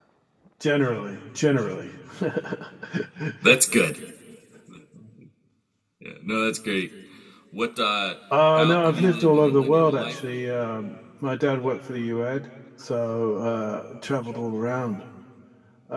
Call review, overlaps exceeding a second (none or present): present